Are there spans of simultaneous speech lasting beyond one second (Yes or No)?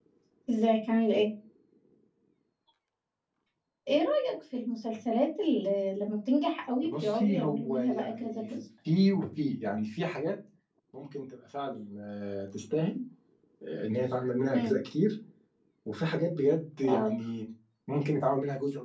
Yes